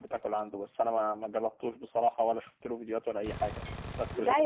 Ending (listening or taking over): taking over